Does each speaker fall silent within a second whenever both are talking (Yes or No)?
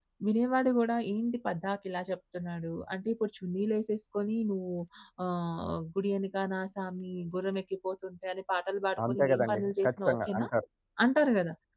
No